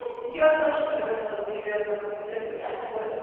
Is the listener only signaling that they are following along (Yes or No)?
Yes